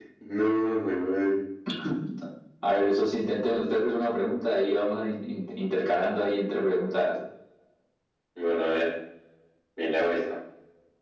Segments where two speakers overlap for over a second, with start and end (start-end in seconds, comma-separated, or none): none